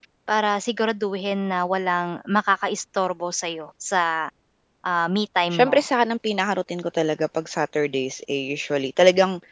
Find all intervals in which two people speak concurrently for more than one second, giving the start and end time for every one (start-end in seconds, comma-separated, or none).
none